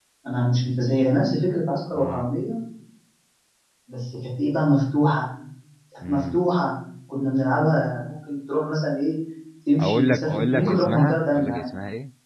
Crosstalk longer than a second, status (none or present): present